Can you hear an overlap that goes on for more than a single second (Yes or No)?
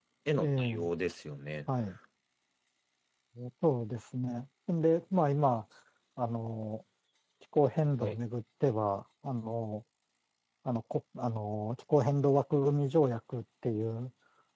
No